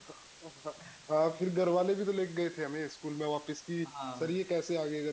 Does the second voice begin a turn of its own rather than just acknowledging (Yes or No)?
No